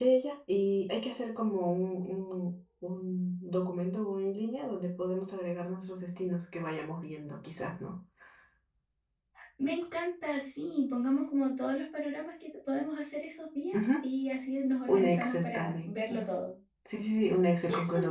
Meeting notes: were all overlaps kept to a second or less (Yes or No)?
No